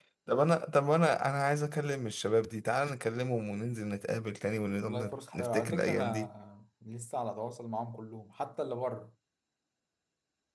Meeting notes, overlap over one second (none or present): present